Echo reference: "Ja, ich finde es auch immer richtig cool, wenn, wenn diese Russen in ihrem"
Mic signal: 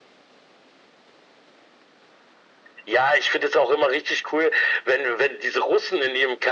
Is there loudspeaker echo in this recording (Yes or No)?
Yes